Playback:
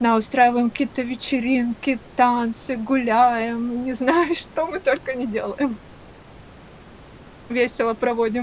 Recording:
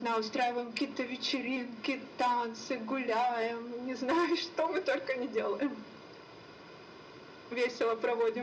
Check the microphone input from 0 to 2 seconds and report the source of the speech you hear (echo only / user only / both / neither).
echo only